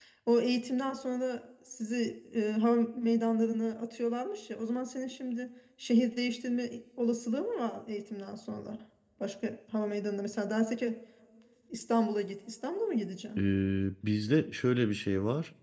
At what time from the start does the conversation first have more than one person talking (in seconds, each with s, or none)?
none